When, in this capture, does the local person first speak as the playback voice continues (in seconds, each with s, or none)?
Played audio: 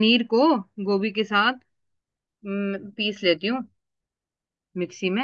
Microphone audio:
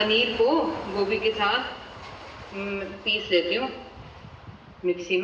none